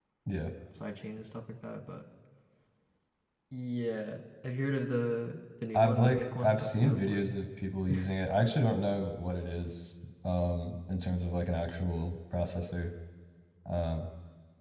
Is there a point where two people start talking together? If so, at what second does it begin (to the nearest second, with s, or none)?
6 s